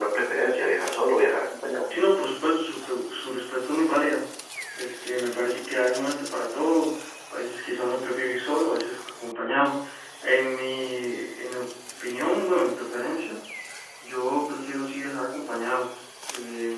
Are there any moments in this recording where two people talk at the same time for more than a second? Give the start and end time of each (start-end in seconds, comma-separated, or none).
none